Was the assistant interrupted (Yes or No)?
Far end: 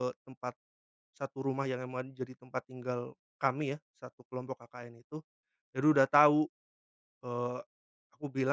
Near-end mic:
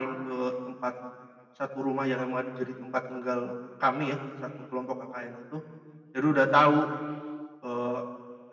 No